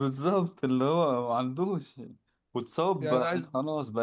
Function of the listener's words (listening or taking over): listening